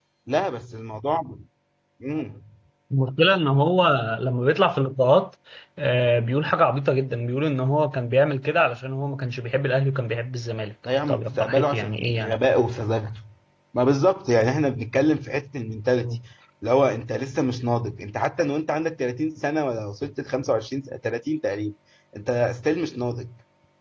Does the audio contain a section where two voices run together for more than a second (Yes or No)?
Yes